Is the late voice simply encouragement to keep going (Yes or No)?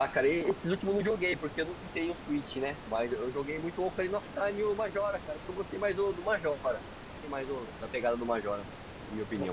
No